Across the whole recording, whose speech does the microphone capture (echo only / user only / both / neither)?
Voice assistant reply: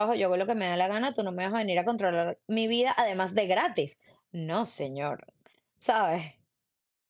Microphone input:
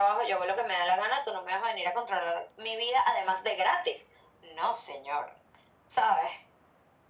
echo only